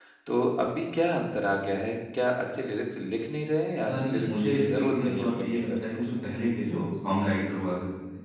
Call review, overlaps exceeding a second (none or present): present